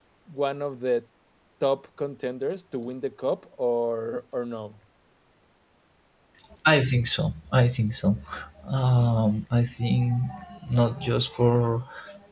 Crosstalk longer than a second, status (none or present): none